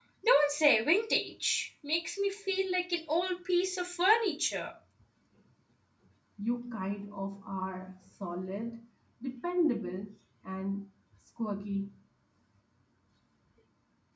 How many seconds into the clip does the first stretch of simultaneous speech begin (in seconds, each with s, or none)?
none